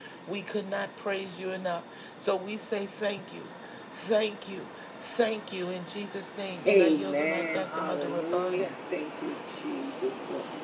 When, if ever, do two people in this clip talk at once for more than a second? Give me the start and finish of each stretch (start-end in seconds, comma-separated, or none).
6.7-8.7